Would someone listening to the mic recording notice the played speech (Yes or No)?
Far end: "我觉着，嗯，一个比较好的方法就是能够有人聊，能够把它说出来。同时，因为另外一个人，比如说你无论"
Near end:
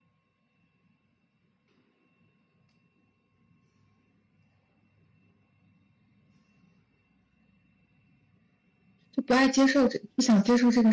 No